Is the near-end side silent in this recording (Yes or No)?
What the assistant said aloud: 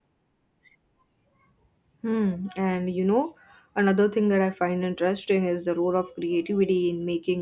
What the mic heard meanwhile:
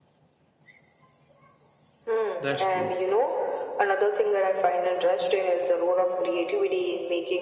No